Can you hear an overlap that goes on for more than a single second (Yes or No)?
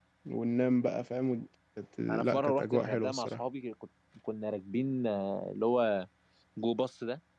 Yes